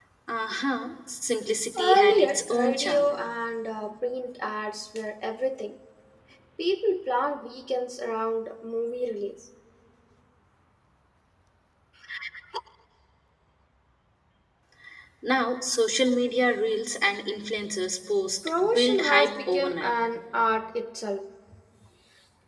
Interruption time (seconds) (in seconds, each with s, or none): 1.8 s